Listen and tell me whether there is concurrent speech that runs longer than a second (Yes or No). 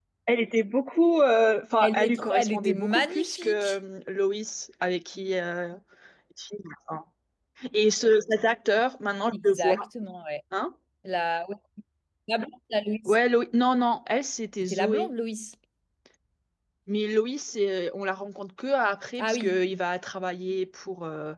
Yes